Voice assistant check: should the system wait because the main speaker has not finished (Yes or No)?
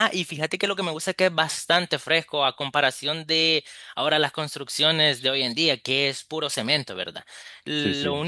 Yes